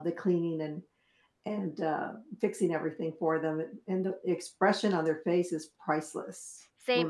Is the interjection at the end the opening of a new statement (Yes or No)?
Yes